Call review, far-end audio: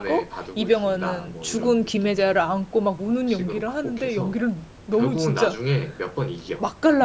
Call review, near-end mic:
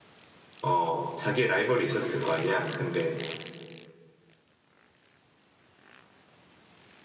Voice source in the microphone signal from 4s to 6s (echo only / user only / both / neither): neither